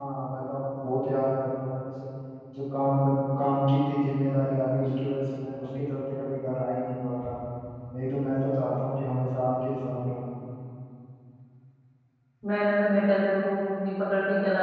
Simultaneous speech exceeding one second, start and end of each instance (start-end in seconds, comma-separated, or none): none